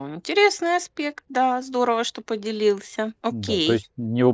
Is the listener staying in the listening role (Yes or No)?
No